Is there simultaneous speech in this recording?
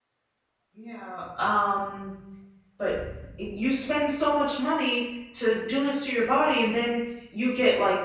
No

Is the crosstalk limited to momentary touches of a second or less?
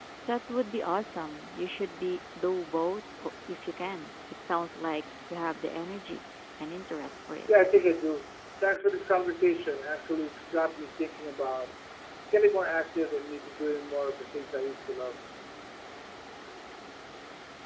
Yes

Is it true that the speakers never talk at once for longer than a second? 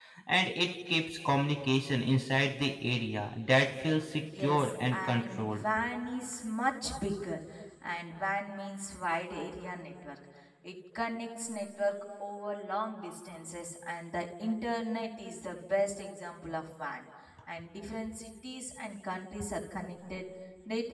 No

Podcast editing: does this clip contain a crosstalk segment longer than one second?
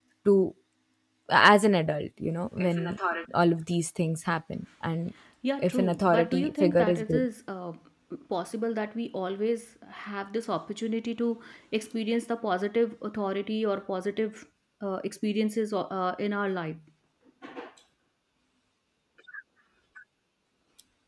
Yes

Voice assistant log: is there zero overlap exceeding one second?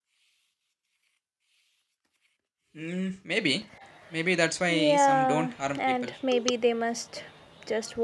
No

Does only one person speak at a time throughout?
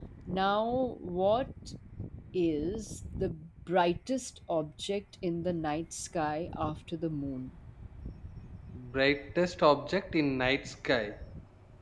Yes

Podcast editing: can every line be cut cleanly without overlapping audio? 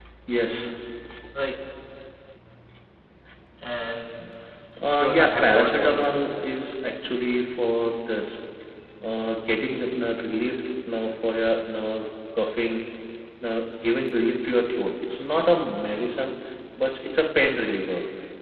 No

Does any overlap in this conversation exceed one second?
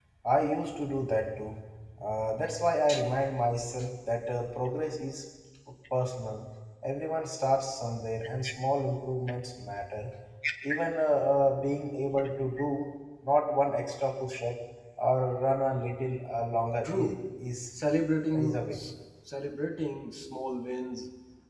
No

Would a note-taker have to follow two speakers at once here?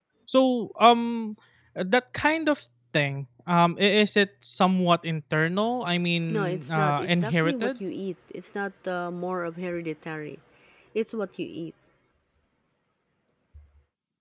Yes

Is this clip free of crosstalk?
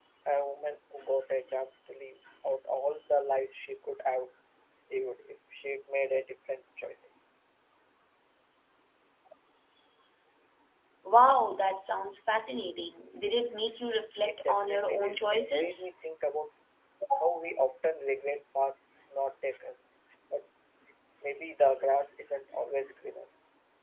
No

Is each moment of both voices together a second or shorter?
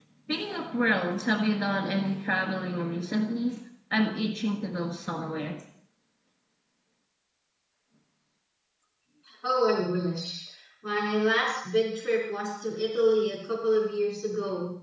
Yes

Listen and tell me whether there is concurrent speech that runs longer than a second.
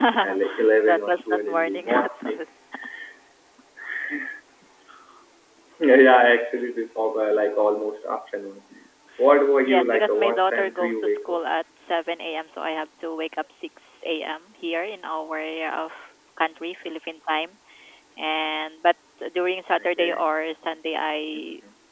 Yes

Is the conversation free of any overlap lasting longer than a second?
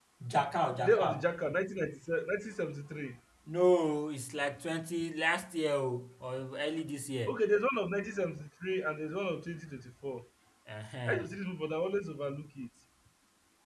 Yes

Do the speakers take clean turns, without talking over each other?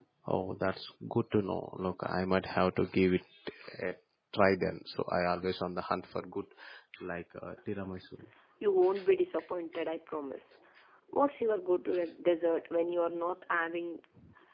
Yes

